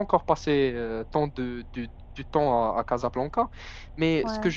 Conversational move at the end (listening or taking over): listening